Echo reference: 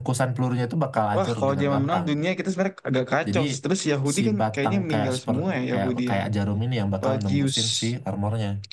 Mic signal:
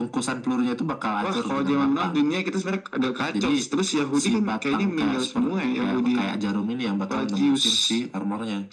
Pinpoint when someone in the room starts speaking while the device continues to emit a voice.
none

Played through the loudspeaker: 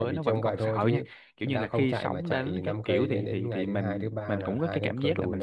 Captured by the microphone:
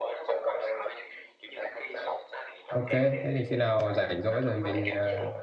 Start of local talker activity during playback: 2.7 s

